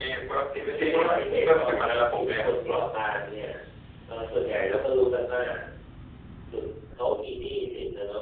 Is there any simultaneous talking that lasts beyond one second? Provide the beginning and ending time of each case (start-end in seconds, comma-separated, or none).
0.6-2.4